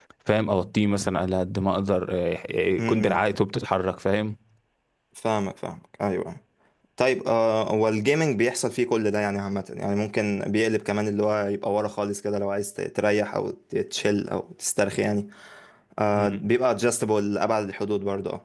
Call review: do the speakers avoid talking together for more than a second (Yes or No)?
Yes